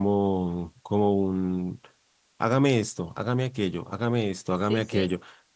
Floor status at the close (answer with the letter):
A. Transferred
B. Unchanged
B